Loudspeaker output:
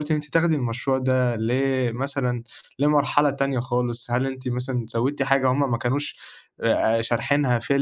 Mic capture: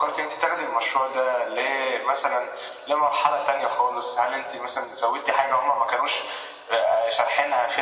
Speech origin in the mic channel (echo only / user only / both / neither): echo only